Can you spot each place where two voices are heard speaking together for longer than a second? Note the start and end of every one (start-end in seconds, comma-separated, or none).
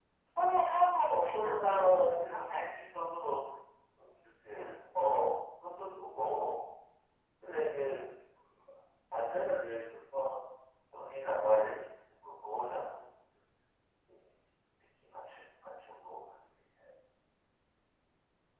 1.1-2.7